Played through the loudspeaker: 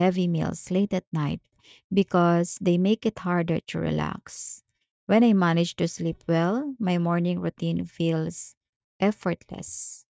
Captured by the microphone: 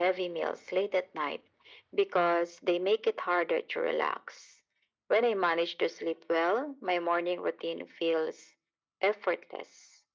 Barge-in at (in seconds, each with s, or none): none